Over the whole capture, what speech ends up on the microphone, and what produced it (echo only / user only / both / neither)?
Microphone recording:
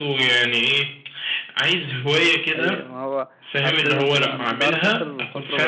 both